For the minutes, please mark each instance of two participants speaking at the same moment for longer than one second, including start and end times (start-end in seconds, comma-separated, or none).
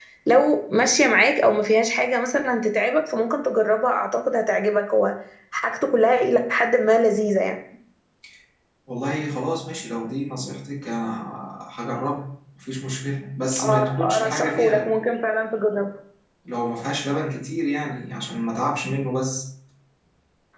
13.6-14.9